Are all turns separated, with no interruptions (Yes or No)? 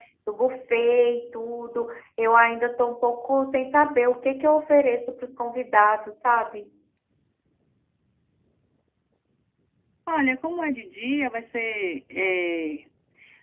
Yes